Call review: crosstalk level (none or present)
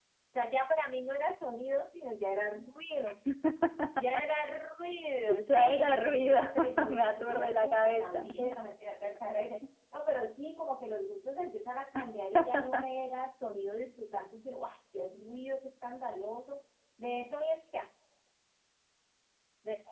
present